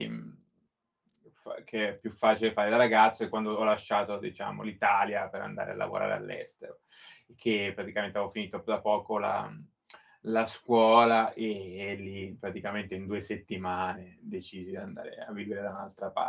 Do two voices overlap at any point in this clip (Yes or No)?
No